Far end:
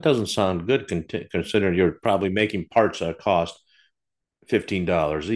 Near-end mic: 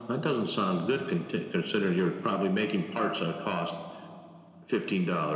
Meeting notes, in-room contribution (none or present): none